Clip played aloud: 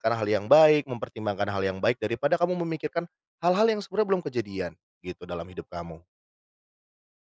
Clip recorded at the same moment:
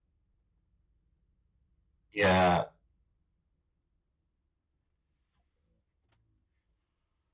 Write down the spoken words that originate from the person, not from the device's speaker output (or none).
Iya.